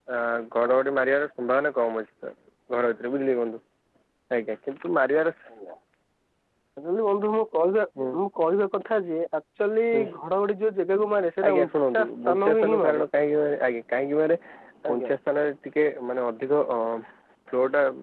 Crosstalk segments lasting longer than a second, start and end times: 11.4-13.0

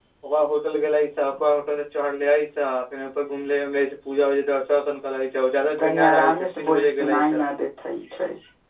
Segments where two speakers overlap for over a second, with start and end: 5.8-7.4

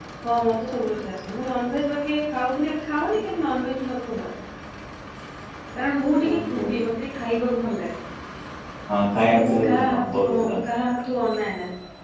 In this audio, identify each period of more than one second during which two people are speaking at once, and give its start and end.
9.2-10.5

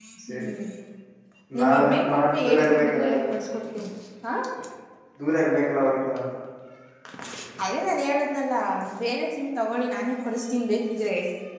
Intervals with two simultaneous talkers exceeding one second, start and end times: 1.6-3.2

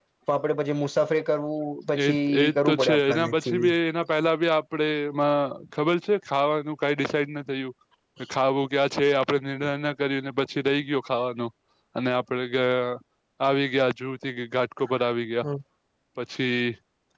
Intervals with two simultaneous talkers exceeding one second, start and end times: 1.9-3.7

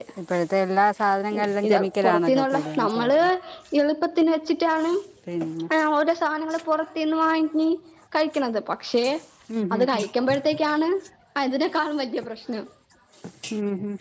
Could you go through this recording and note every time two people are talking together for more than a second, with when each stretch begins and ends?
1.7-3.1

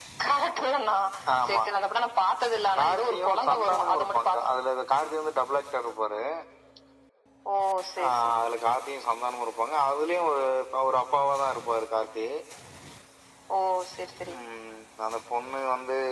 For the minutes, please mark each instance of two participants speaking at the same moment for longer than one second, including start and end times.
2.8-4.5

